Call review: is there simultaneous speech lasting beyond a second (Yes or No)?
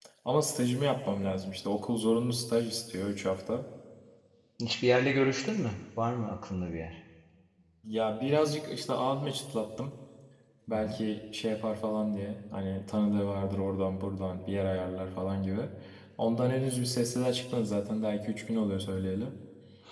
No